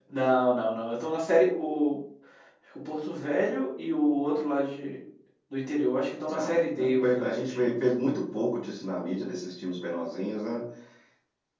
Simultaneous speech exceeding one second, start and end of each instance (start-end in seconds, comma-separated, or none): 6.3-7.8